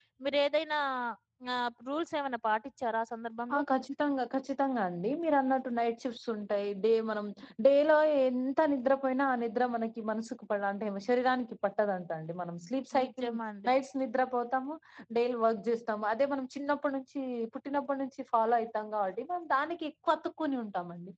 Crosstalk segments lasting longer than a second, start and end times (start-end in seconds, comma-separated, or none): none